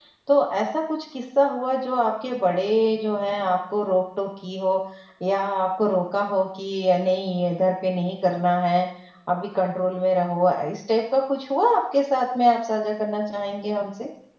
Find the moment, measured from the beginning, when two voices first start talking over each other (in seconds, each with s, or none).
none